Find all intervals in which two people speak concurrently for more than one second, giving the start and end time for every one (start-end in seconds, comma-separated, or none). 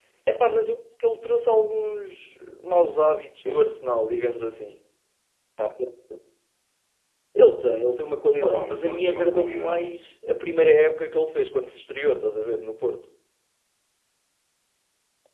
8.4-9.8